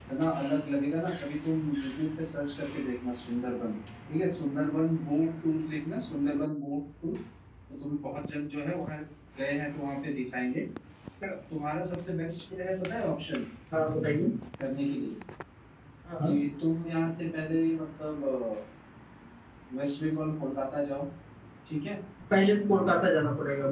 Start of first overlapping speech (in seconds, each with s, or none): none